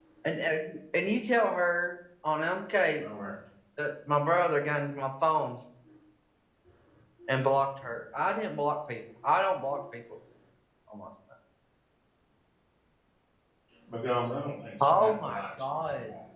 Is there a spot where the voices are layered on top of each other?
Yes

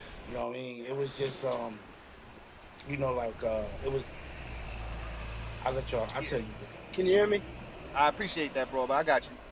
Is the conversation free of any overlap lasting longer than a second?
Yes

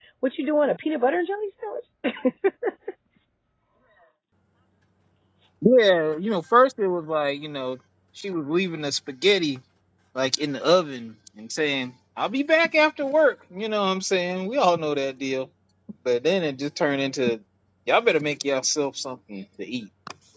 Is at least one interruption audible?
No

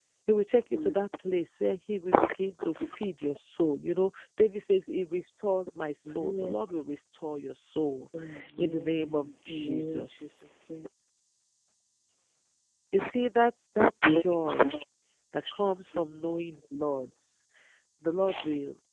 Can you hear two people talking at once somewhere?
Yes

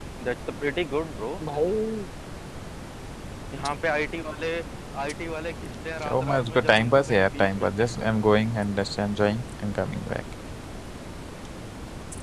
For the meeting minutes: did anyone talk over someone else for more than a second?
Yes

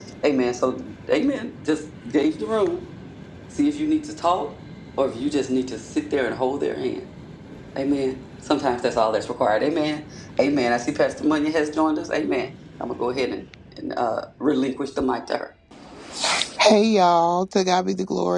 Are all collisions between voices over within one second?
Yes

